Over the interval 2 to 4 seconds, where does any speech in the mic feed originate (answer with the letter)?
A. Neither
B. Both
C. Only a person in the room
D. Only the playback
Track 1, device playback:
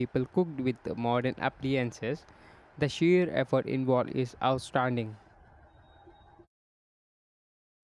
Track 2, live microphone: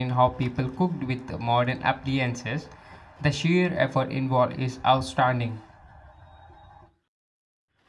D